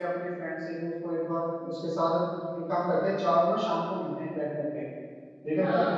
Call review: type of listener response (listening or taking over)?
taking over